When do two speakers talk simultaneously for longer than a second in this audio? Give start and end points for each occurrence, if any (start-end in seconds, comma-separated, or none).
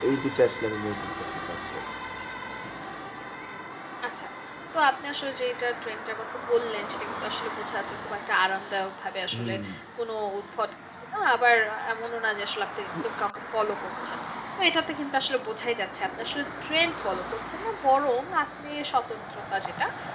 none